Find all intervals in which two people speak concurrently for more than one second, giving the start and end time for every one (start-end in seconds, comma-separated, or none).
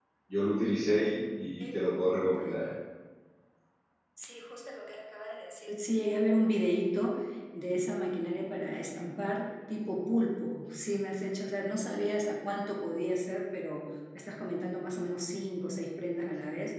none